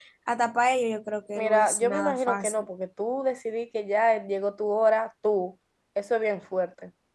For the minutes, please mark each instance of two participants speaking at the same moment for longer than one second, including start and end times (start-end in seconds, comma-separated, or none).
1.4-2.6